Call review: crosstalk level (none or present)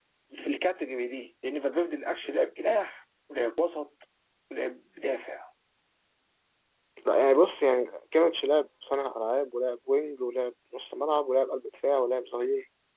none